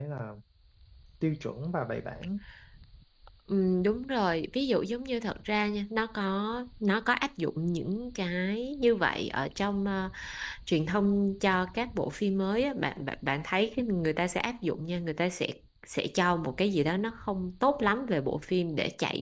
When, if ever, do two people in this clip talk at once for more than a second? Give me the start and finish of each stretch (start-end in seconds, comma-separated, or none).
none